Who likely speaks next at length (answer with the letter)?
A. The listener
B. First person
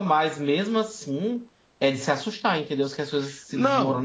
A